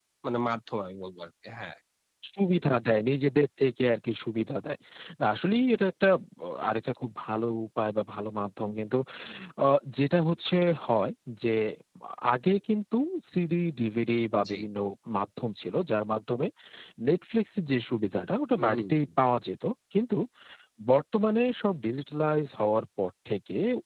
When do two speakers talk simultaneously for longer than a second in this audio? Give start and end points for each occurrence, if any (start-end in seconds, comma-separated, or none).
none